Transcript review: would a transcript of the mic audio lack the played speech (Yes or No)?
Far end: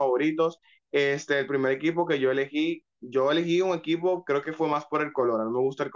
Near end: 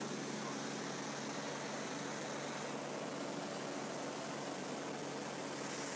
Yes